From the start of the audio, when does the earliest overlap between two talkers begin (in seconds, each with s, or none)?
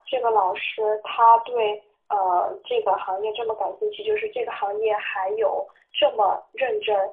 none